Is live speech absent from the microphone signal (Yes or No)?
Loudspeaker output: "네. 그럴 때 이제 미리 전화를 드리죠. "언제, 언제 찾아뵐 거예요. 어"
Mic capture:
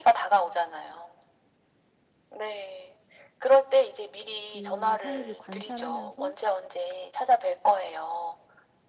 No